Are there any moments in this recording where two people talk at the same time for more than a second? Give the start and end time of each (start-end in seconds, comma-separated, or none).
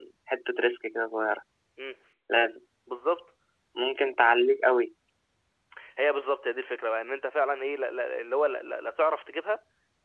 none